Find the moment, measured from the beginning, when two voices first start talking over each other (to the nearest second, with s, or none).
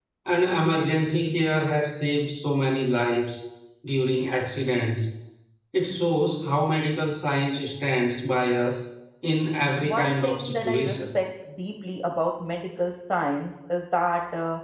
10 s